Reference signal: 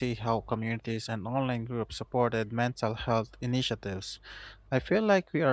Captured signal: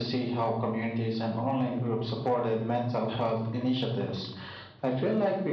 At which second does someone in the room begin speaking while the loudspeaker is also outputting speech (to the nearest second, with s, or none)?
none